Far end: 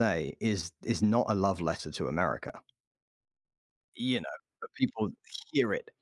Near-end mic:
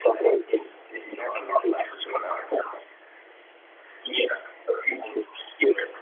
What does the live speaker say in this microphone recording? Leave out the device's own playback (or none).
none